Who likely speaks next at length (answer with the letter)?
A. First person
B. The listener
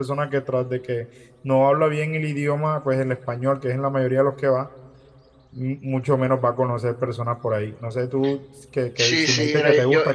B